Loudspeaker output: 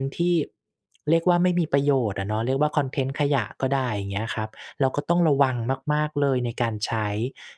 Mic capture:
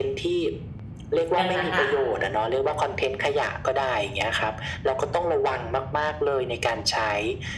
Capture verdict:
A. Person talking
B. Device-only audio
A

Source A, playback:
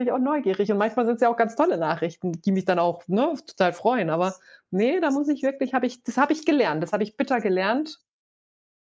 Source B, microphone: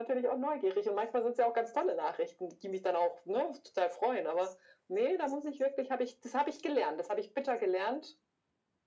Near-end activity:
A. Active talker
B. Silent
B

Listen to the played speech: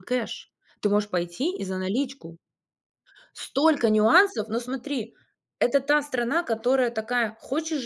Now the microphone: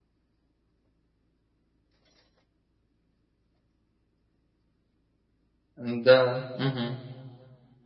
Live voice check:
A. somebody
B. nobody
A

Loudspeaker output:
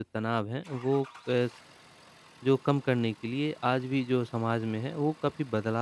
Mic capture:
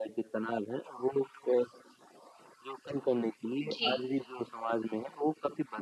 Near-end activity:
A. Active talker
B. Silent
A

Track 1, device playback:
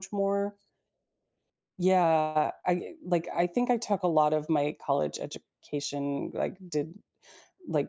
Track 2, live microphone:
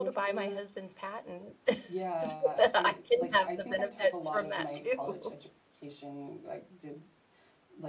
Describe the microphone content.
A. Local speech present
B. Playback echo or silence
A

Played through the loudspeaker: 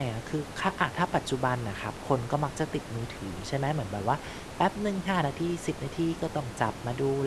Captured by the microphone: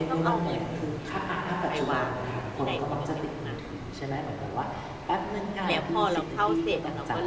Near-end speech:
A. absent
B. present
B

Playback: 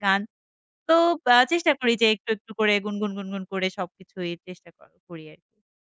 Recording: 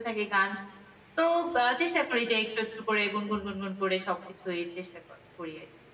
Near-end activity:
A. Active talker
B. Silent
B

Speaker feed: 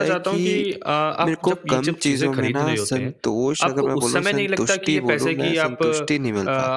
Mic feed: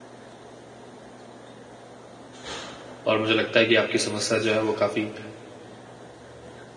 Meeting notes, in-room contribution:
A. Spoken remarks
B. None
A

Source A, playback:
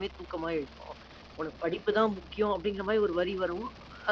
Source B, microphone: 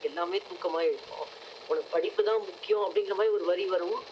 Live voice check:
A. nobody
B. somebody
A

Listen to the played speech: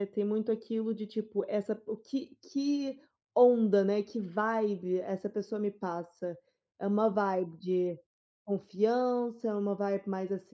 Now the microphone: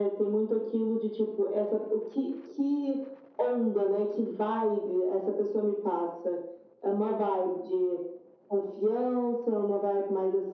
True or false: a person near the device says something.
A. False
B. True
A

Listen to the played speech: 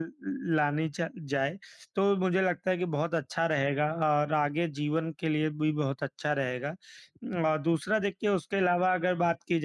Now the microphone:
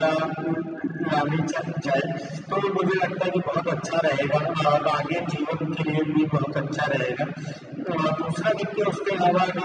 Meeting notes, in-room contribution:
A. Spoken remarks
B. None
B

